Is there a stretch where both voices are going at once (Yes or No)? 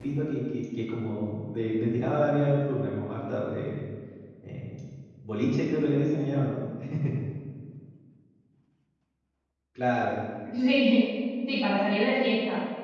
No